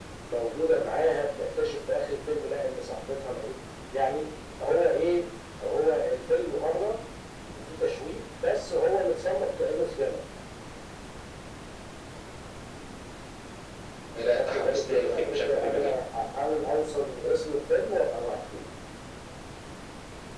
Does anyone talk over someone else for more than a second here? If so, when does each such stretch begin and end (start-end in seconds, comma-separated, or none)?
14.3-16.0